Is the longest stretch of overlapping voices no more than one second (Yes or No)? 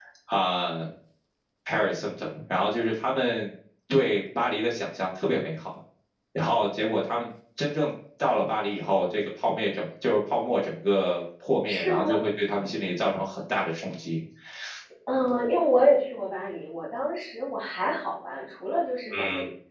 Yes